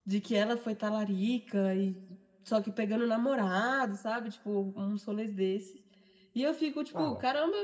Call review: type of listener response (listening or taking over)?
listening